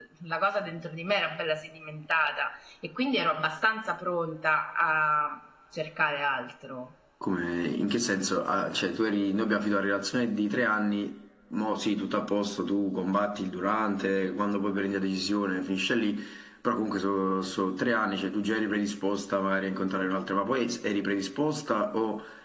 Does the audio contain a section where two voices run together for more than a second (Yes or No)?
No